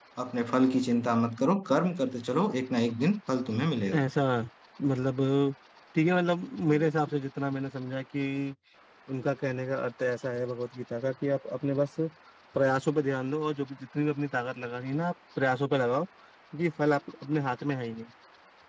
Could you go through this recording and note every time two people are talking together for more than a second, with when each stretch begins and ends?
none

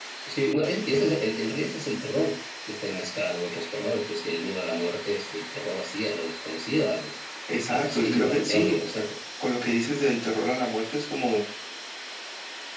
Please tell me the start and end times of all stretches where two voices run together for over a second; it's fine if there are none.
7.7-8.9

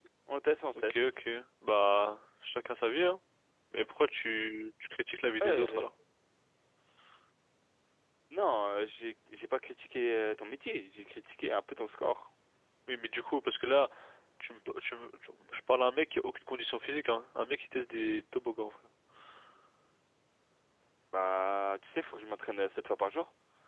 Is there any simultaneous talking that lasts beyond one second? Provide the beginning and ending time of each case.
none

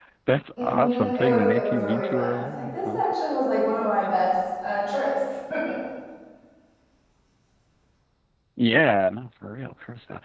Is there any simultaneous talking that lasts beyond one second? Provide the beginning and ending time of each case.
0.6-3.1

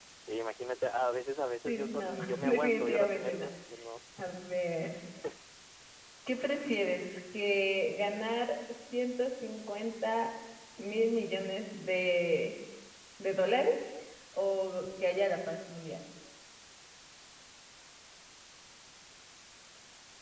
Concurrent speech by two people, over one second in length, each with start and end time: 1.6-3.5

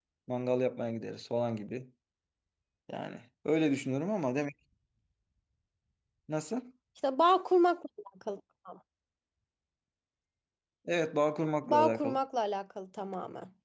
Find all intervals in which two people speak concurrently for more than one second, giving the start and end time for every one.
none

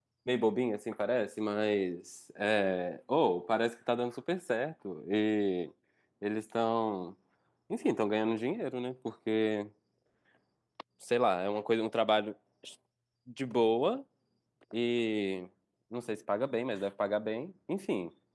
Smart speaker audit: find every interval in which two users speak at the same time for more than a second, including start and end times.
none

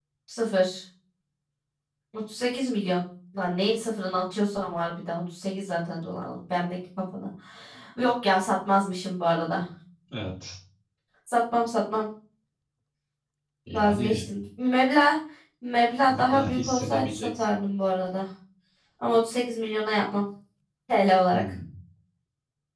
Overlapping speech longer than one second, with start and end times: 16.1-17.6

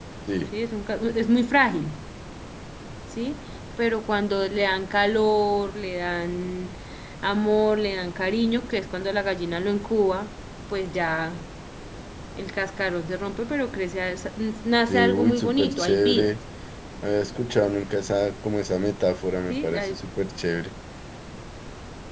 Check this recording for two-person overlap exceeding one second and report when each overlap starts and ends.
14.9-16.3

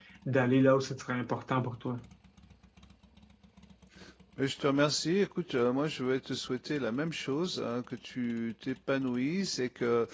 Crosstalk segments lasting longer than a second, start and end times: none

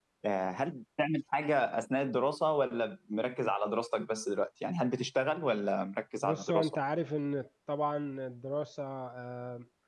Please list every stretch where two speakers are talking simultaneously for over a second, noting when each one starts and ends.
none

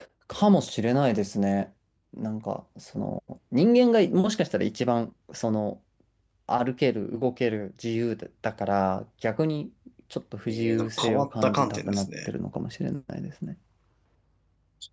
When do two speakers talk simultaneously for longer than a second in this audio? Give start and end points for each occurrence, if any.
10.5-12.3

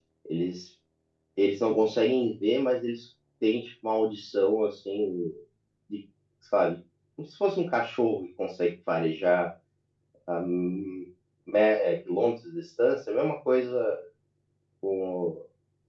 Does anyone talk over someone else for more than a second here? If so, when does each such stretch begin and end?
none

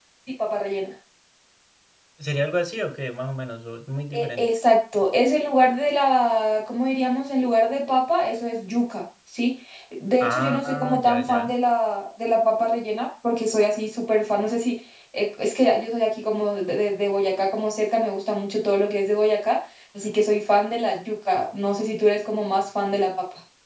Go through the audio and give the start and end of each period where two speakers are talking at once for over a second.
10.2-11.5

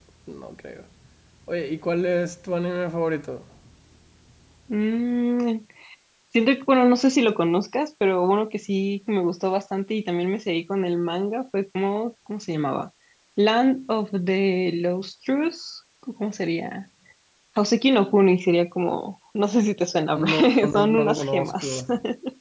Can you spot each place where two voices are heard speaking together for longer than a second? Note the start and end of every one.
20.2-21.8

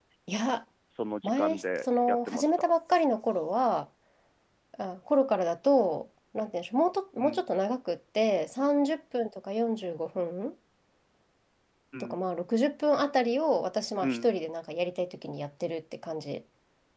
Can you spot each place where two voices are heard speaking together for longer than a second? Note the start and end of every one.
1.2-2.7

